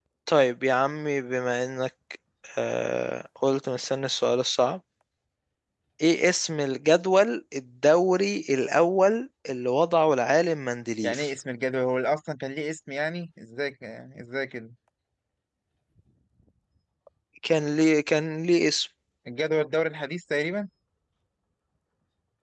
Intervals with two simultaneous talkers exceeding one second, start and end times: none

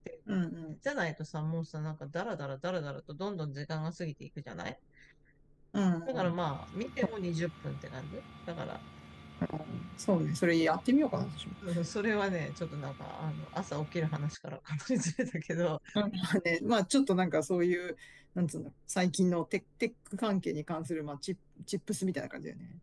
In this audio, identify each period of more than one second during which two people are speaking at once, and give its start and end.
none

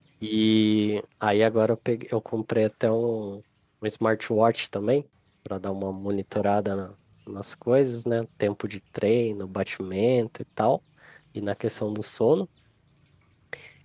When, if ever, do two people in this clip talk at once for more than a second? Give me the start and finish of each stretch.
none

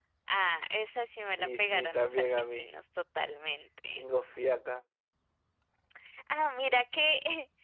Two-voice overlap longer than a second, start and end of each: 1.4-2.7

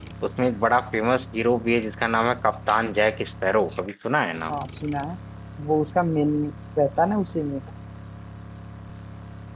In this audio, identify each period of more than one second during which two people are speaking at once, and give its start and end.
none

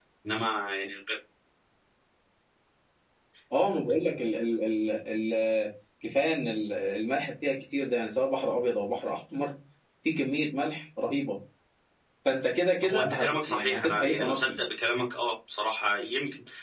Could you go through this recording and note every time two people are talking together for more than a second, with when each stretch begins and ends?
12.8-14.5

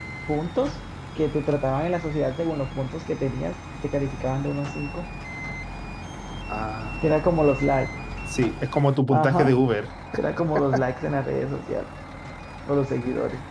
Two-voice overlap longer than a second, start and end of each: none

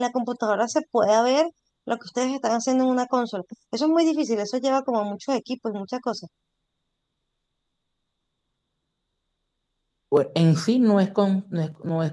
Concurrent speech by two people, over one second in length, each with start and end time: none

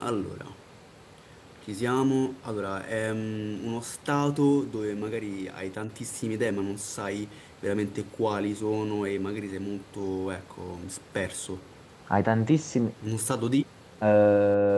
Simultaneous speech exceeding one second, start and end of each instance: none

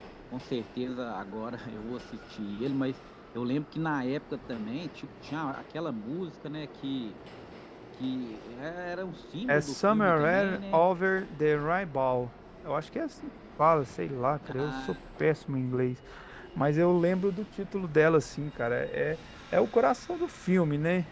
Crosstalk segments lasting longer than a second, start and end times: 9.5-10.8

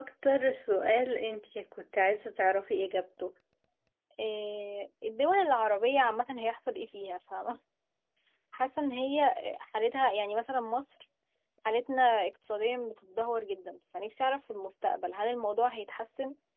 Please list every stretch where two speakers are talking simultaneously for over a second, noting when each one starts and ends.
none

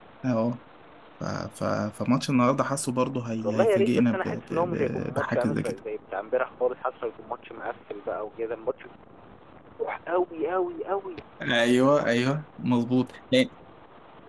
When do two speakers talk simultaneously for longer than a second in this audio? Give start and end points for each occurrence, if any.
3.4-5.8

